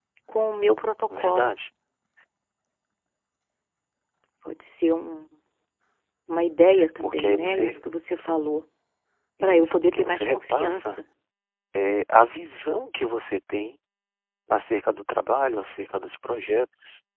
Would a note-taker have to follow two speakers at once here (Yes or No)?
Yes